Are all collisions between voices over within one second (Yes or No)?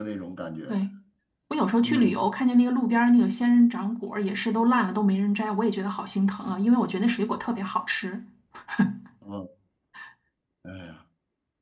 Yes